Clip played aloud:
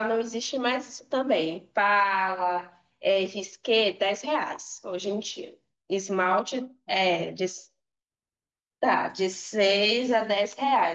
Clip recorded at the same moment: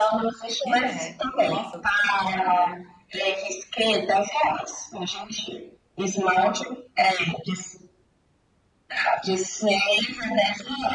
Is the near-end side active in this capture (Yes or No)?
Yes